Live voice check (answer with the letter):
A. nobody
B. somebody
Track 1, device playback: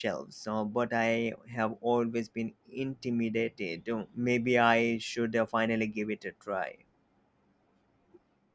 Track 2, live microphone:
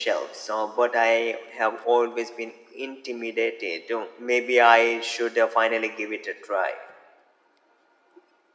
A